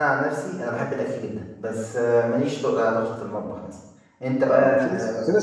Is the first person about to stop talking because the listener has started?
Yes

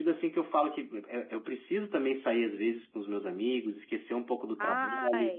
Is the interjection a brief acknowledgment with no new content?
Yes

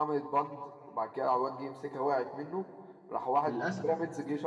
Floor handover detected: No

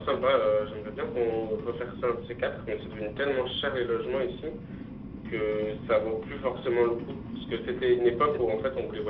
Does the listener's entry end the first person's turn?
No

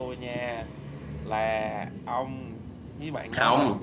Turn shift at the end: Yes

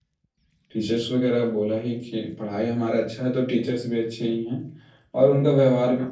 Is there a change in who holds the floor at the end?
No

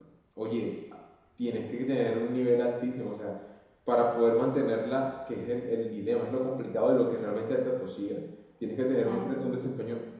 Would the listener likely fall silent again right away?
Yes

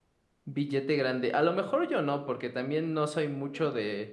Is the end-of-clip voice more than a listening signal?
No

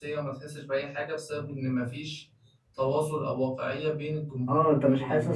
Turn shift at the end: Yes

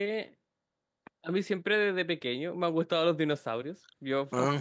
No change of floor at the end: Yes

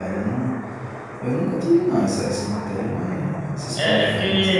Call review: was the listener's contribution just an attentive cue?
No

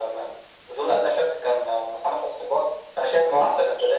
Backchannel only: Yes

